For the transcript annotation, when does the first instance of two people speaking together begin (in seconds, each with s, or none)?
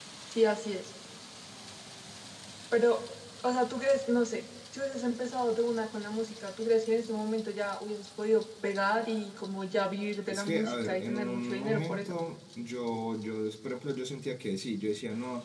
10.3 s